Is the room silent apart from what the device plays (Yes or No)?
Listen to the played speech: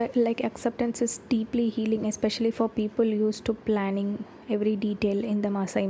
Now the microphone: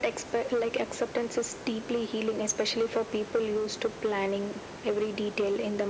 Yes